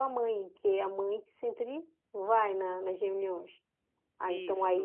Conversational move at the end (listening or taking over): listening